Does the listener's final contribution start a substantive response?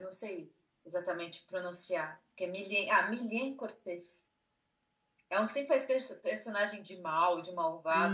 Yes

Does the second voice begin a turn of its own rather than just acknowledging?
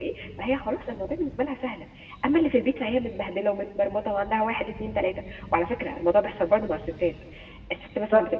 No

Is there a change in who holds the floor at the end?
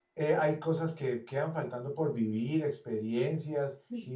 Yes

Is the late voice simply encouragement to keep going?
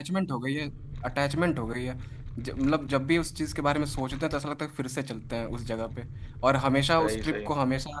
Yes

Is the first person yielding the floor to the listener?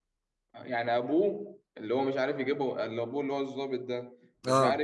No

